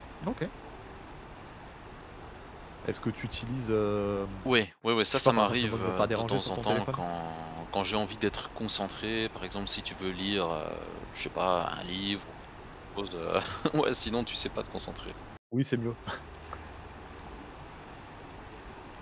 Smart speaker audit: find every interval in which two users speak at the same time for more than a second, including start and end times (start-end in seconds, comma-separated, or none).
5.1-7.0